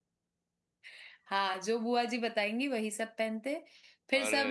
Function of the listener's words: listening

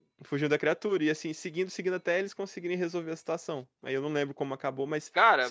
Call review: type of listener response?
listening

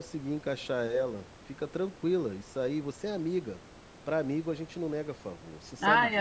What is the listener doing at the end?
taking over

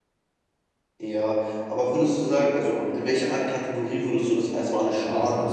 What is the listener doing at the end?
taking over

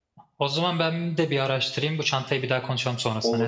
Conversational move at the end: taking over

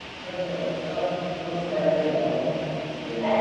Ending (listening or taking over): taking over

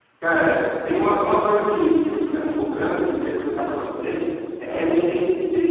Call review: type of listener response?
listening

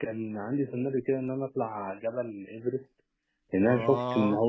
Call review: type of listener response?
listening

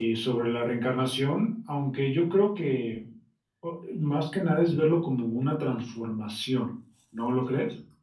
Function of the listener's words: taking over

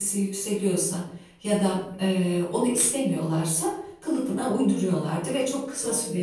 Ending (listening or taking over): listening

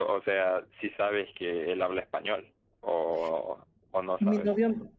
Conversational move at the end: taking over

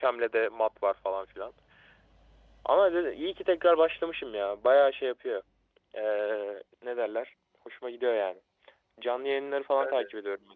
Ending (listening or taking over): listening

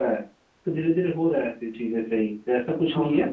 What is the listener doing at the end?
listening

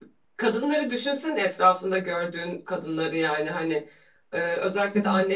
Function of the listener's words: listening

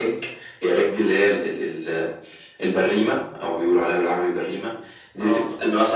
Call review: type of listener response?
listening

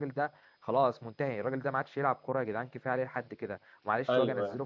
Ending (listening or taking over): listening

